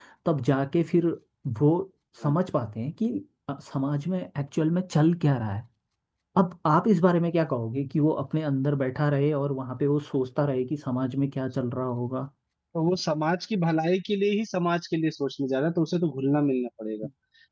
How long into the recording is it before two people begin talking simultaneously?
none

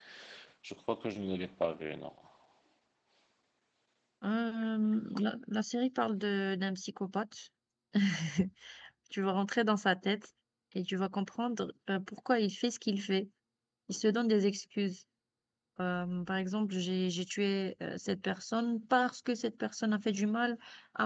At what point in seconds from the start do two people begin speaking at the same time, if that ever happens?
none

